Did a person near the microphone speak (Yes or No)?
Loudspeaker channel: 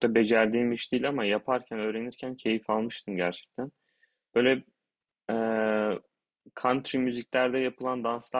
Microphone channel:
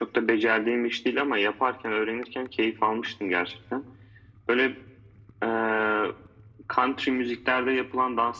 No